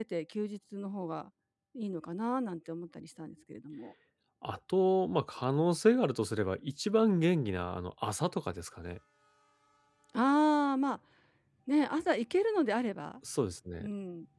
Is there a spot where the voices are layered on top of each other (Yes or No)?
No